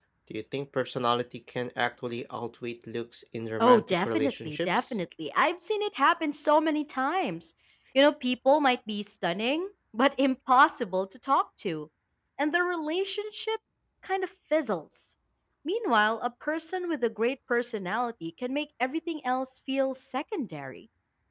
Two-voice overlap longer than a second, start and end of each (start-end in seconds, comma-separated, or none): 3.6-4.9